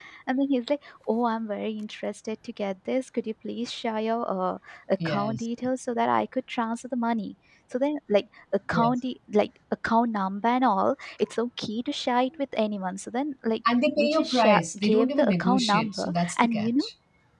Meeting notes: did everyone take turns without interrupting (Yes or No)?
No